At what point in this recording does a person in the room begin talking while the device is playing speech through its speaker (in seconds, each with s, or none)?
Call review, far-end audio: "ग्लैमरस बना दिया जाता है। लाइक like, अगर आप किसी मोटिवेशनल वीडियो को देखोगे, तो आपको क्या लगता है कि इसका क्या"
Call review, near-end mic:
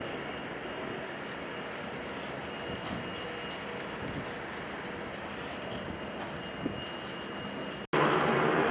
none